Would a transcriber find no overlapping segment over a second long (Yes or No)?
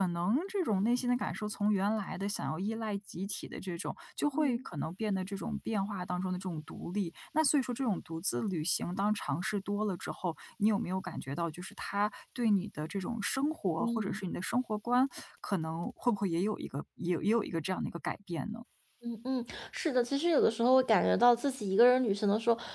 Yes